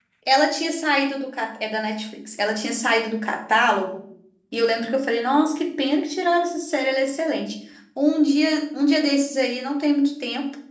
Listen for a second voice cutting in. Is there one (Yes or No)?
No